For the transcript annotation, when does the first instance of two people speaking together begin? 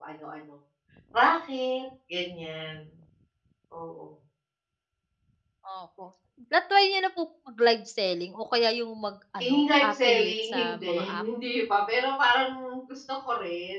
9 s

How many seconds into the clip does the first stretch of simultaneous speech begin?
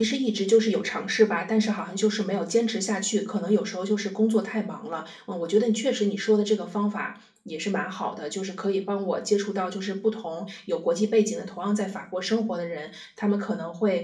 none

